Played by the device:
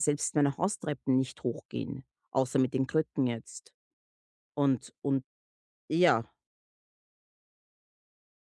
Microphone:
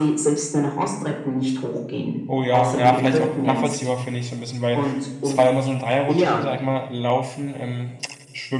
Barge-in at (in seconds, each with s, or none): 2.3 s